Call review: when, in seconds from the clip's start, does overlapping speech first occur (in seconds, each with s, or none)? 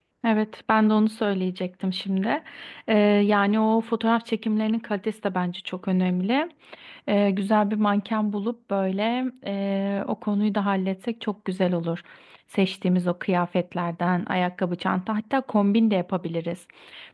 none